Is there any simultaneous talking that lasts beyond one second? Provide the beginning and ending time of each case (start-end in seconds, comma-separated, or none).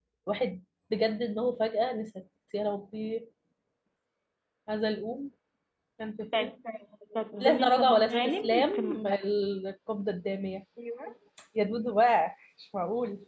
7.4-9.1